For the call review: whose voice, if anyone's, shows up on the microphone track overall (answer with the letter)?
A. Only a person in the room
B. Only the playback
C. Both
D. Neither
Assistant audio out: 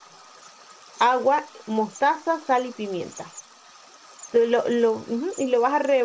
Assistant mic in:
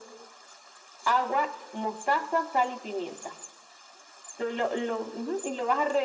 B